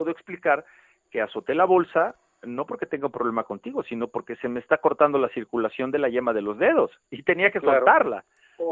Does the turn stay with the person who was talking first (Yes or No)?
No